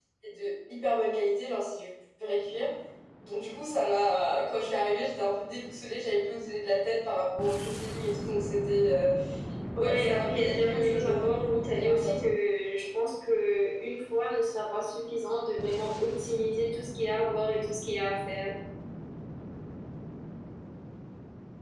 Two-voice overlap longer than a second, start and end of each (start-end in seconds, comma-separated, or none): 9.8-12.3